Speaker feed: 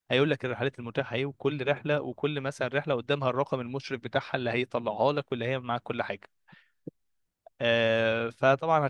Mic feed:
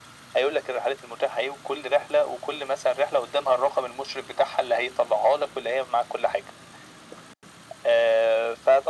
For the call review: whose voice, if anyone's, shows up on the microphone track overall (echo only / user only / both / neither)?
echo only